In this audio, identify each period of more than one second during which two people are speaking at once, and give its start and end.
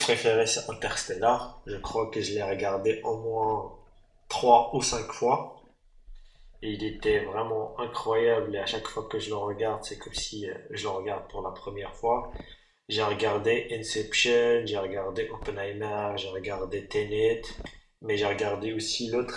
none

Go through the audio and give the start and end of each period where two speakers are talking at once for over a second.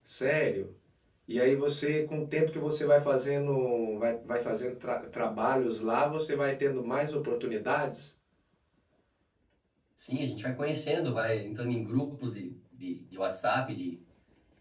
none

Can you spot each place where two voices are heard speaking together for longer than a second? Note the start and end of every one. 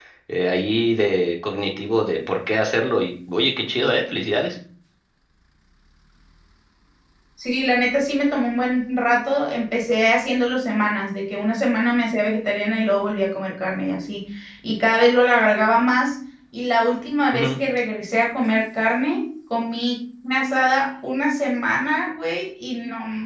none

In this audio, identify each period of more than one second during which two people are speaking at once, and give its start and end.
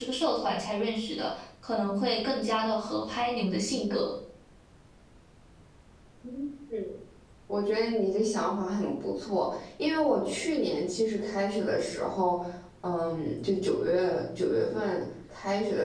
none

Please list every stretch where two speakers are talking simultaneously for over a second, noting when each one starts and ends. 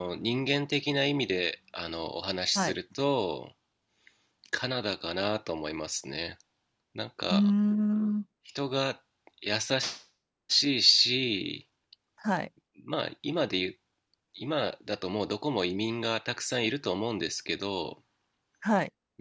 none

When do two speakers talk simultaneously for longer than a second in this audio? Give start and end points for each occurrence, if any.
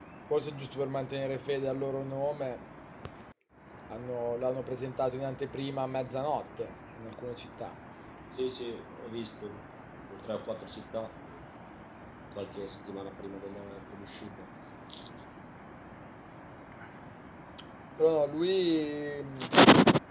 none

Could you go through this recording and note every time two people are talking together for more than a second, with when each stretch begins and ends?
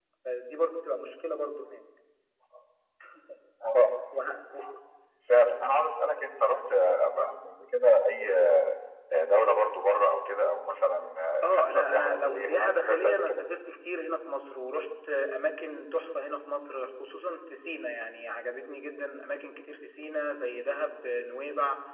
11.4-13.4

